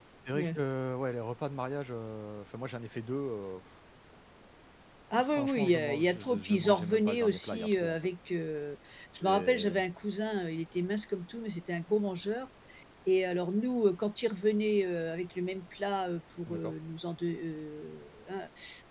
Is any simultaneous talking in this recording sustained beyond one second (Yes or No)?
Yes